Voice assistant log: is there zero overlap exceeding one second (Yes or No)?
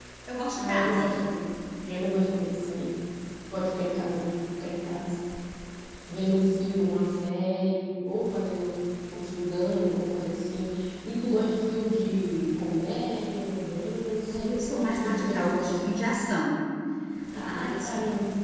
No